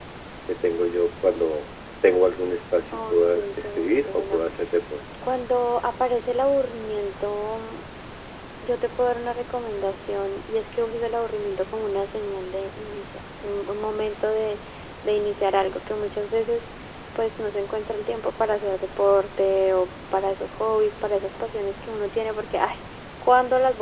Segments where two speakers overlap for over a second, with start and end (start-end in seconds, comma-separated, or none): 2.9-4.4